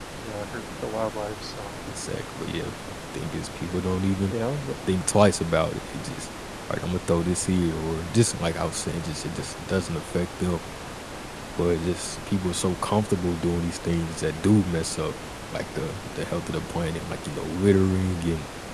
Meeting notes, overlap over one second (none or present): none